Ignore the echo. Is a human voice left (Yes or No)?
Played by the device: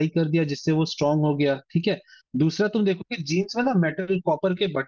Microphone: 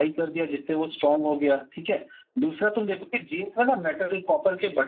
No